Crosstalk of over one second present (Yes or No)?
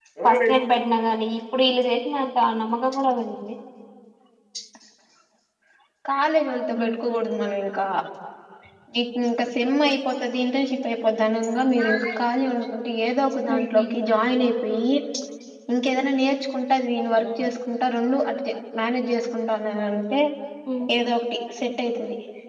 No